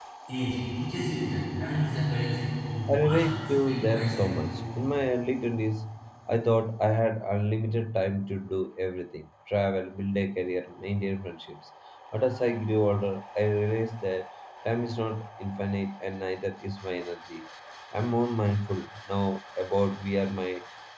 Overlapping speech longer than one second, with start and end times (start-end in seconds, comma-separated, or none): 2.9-4.4